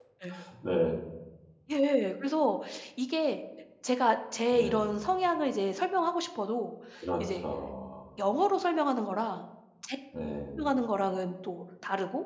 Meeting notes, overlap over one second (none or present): none